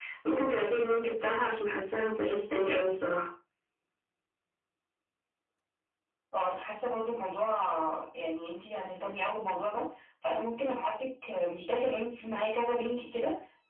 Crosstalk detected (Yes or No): No